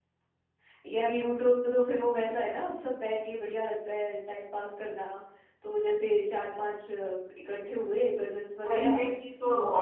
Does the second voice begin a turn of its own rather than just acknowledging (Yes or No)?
Yes